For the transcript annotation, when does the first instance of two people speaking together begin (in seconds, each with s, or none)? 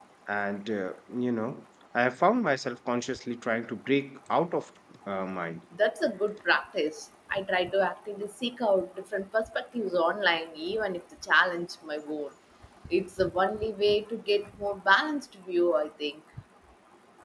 none